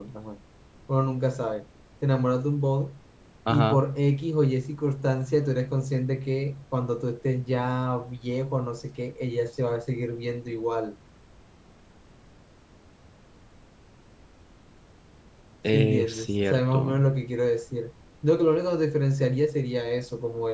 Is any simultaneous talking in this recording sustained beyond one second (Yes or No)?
Yes